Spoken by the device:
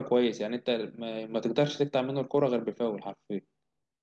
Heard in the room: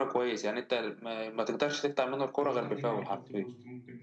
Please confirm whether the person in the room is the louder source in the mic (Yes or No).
No